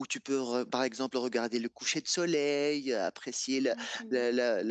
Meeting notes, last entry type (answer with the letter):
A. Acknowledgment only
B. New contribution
A